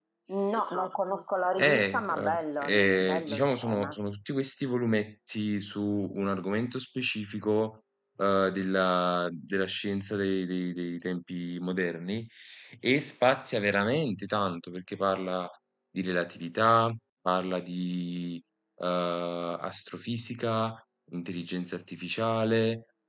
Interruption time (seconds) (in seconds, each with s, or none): 1.6 s